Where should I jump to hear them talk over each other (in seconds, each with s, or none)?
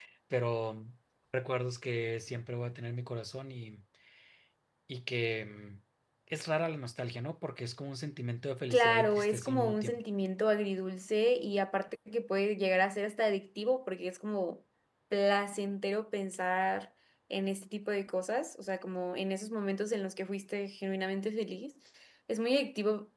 8.7 s